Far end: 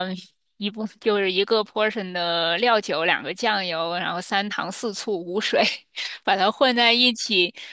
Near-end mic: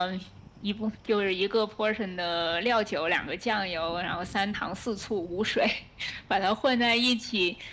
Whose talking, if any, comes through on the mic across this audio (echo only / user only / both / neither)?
echo only